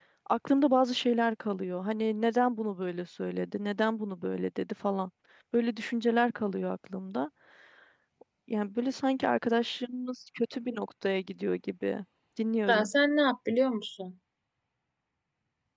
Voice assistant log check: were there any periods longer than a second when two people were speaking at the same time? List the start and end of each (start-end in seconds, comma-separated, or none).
none